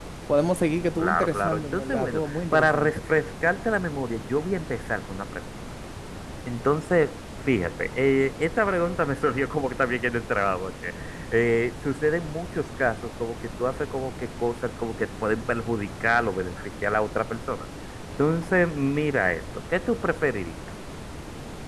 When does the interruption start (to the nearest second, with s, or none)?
1 s